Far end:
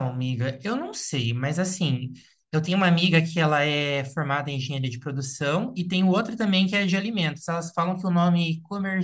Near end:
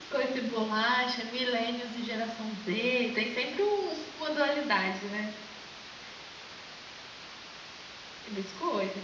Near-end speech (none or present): present